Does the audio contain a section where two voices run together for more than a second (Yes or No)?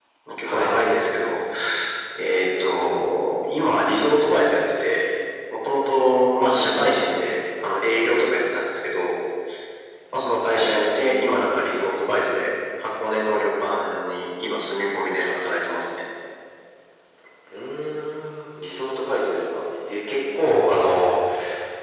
No